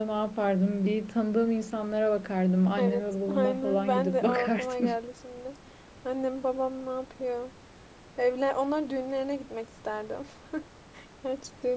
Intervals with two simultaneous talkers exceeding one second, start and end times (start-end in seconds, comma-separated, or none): 2.8-4.9